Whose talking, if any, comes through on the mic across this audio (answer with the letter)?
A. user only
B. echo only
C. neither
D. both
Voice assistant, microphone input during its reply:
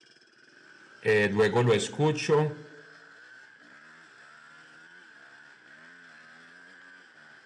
A